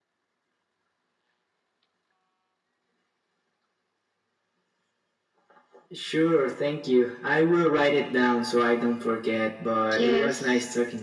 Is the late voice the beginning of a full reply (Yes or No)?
Yes